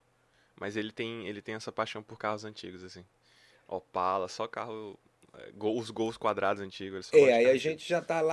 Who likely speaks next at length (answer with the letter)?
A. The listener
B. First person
A